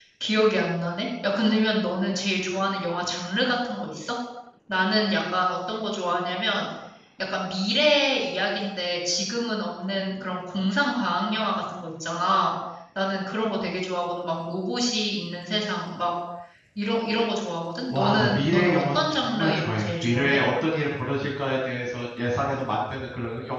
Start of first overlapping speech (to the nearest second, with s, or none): 18 s